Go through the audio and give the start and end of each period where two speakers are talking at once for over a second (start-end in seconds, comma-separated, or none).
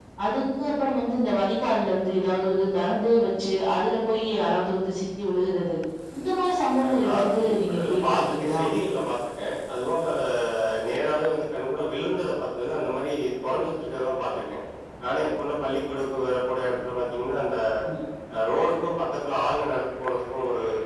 6.8-8.6